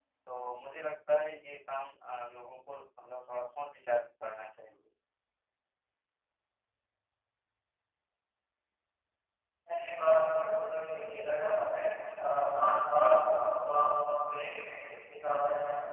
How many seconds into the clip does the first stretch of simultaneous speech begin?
none

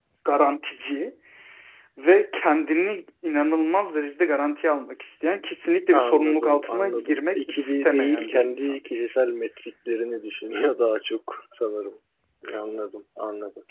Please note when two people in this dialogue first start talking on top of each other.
6 s

